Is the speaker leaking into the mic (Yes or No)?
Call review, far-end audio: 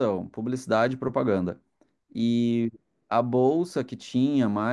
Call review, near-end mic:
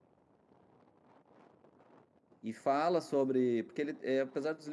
No